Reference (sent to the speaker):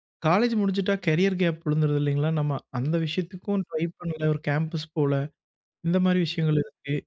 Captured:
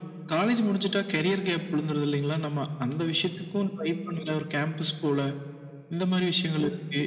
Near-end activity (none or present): none